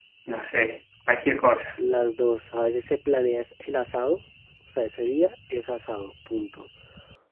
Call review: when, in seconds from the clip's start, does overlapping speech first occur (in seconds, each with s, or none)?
none